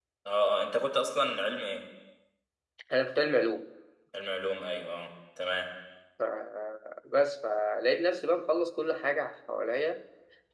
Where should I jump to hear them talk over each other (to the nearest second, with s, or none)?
none